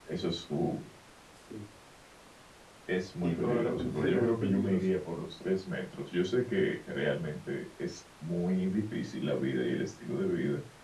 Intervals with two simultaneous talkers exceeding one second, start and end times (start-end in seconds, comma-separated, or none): 3.2-4.8